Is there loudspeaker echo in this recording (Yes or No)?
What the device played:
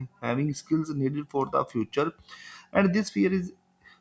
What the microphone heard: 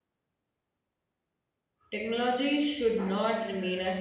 No